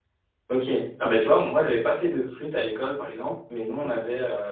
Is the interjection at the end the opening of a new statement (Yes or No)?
No